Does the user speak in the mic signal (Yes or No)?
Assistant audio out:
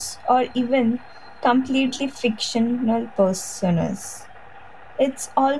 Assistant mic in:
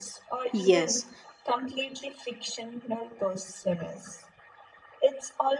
Yes